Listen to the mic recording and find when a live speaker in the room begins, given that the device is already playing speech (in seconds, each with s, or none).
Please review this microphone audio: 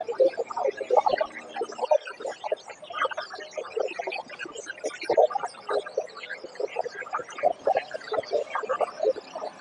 none